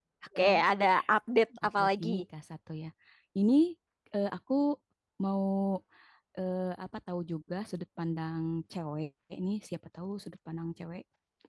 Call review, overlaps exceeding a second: none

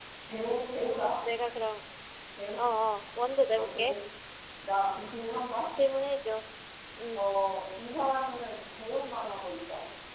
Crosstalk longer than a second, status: none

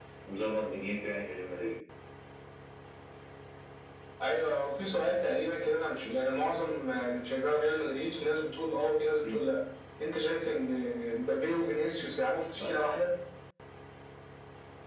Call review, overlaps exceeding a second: none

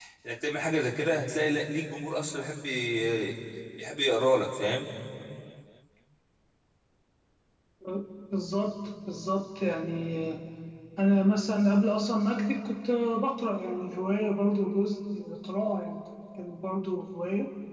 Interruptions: none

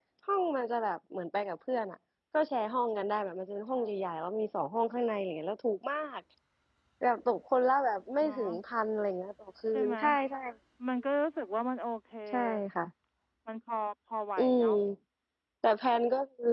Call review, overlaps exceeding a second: none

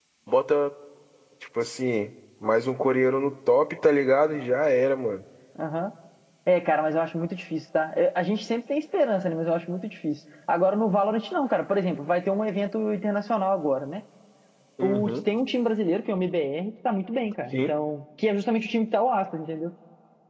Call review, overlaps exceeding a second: none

